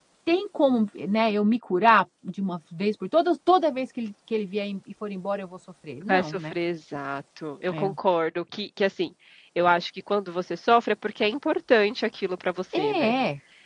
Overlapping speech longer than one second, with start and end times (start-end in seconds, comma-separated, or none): none